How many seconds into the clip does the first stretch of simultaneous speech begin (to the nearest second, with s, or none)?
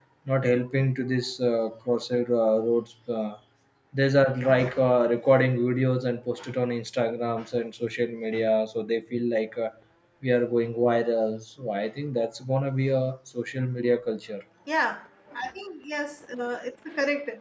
none